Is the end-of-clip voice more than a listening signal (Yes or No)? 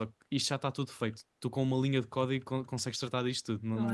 No